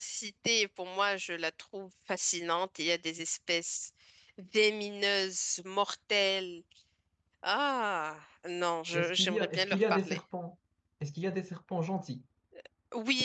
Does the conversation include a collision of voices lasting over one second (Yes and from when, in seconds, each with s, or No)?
Yes, from 8.9 s